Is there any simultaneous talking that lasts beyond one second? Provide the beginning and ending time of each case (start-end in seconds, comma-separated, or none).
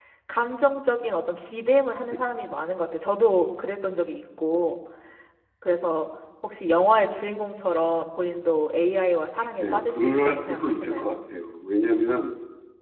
9.4-11.1